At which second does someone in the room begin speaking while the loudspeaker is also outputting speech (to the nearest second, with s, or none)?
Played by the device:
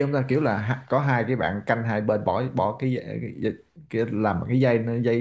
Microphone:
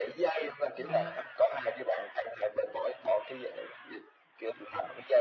1 s